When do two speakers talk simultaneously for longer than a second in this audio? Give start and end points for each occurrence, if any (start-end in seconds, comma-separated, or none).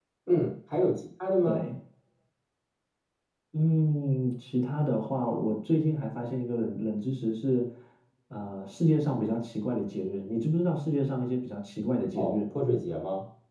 none